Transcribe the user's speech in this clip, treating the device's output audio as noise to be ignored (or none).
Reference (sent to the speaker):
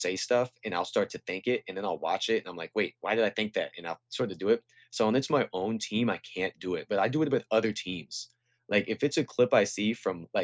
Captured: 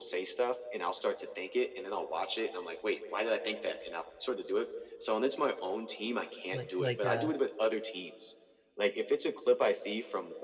Like, like, uh